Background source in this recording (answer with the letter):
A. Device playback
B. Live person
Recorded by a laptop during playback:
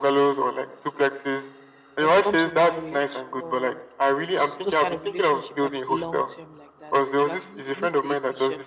B